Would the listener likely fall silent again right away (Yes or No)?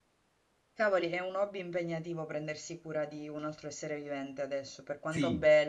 No